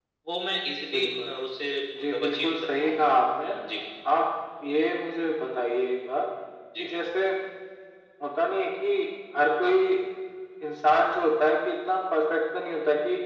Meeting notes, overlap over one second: present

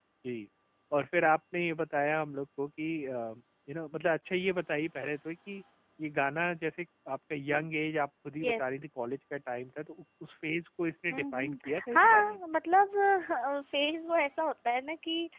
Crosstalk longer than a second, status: present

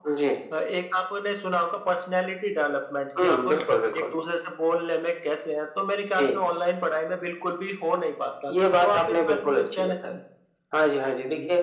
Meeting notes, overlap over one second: present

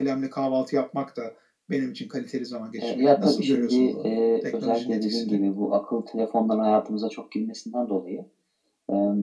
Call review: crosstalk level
present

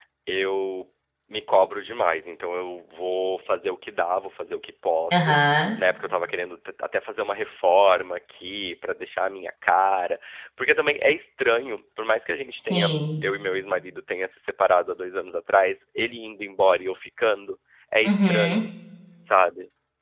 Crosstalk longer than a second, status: none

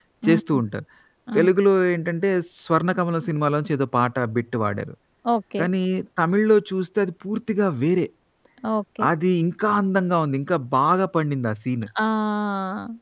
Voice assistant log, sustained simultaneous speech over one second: none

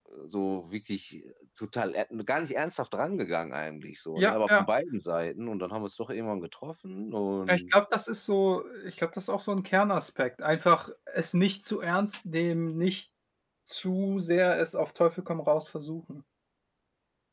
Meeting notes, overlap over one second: none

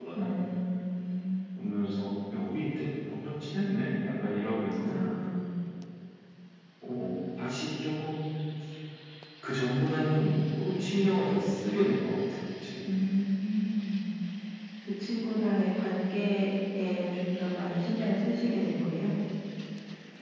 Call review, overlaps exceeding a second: none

